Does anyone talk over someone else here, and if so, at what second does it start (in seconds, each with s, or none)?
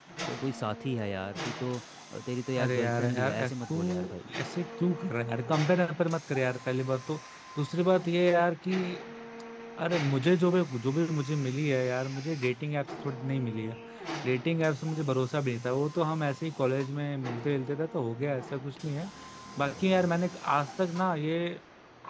2.6 s